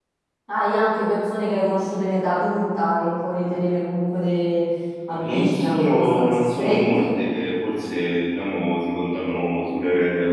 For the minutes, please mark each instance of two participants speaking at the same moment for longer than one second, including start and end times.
5.1-7.1

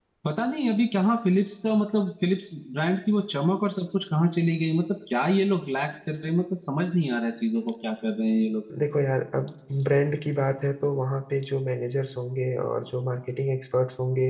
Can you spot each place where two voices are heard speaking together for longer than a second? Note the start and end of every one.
none

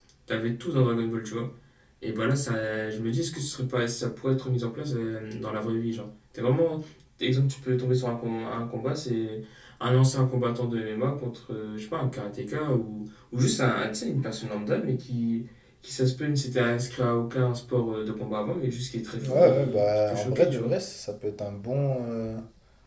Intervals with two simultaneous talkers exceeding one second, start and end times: 19.2-20.7

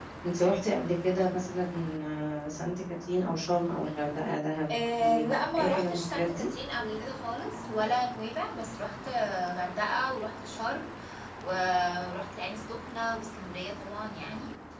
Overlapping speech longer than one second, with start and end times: 5.0-6.5

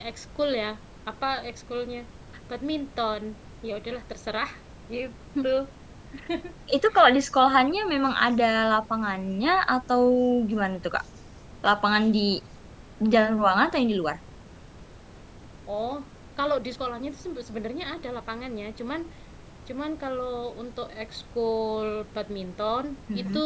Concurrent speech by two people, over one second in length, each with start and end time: none

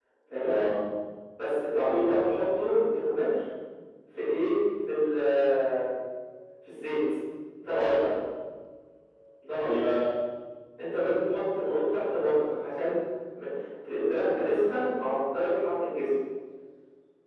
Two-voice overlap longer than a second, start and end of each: none

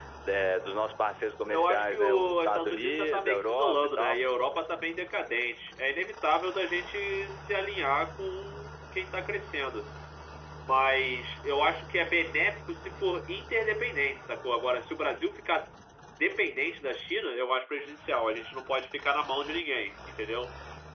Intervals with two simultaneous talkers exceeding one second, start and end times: 1.4-4.2

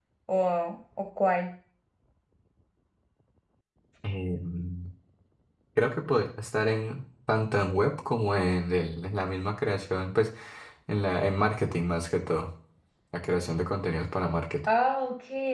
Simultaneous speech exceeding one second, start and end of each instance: none

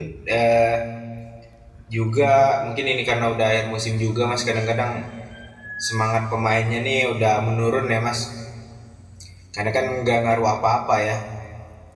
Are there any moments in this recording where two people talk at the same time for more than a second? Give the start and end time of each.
none

